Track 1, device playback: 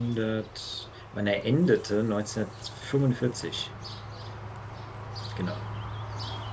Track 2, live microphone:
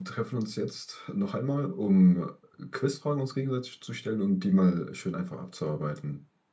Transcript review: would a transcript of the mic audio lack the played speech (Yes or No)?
Yes